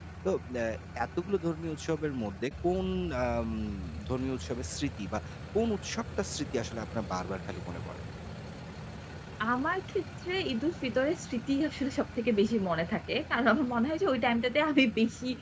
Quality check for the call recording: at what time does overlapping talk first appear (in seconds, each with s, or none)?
none